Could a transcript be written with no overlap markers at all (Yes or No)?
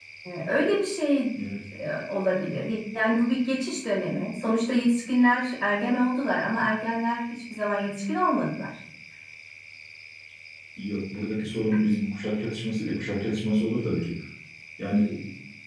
Yes